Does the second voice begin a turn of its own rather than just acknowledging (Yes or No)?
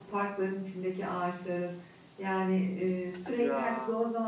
No